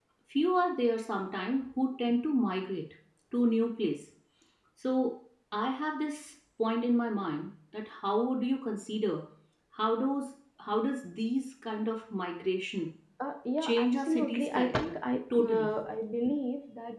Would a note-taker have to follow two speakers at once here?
Yes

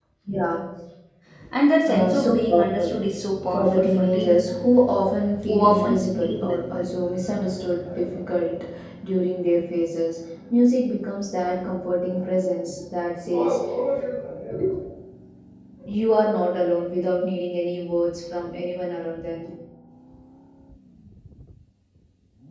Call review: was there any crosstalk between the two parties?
Yes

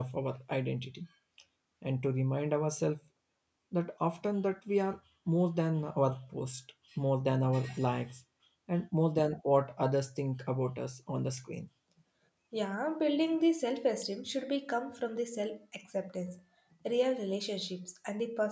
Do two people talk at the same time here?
No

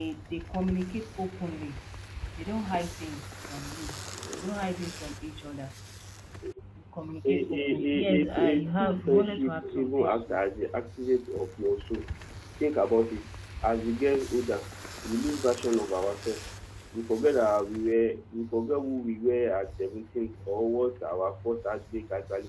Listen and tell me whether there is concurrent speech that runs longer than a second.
Yes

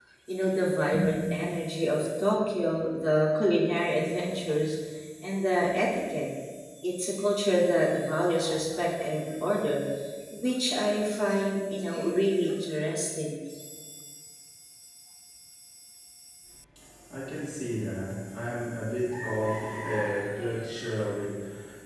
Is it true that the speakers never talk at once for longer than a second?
Yes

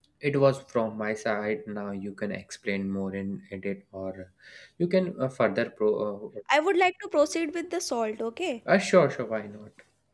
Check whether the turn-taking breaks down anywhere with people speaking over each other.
No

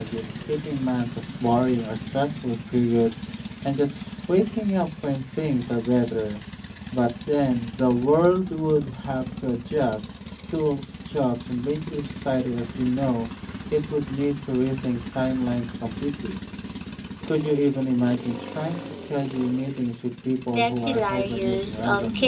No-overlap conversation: No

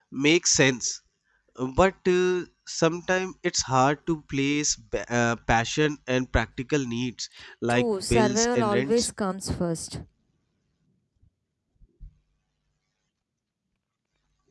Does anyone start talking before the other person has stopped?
Yes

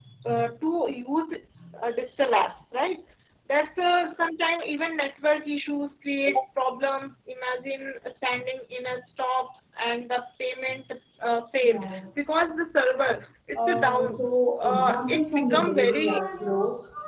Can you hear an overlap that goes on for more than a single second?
Yes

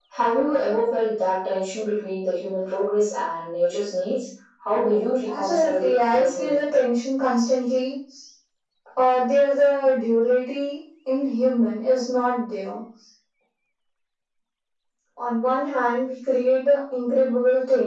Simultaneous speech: Yes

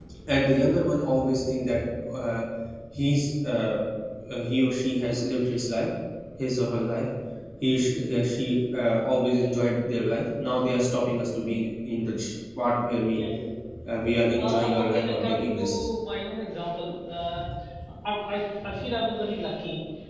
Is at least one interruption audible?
Yes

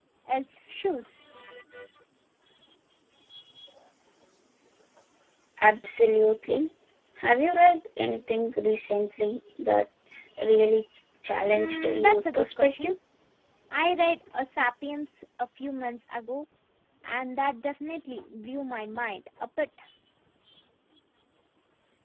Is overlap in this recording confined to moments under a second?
No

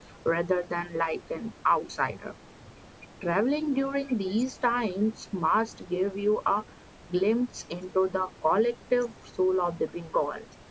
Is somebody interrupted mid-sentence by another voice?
No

